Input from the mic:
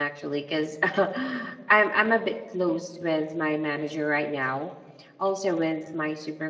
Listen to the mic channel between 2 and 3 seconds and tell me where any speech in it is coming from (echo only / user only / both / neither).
user only